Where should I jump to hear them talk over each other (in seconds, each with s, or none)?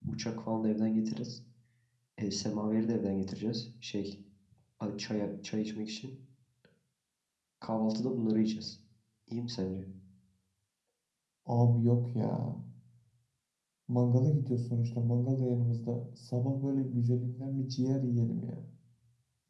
none